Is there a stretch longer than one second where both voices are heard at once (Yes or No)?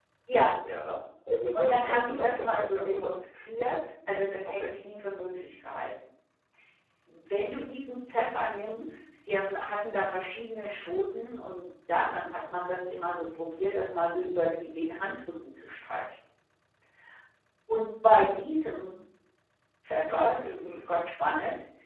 Yes